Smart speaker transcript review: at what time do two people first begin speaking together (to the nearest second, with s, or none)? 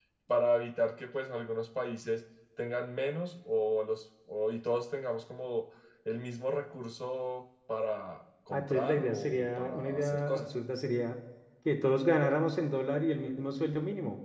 9 s